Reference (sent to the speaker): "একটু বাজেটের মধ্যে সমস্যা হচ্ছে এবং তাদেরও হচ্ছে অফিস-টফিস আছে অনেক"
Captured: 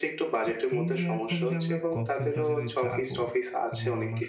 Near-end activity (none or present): present